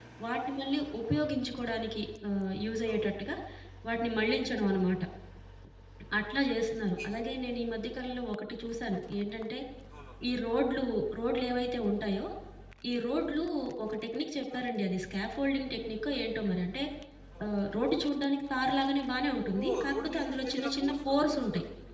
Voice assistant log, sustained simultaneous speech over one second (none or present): present